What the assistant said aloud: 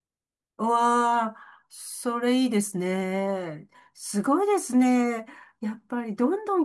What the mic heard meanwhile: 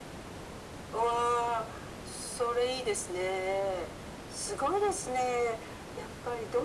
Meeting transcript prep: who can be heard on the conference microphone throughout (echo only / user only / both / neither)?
echo only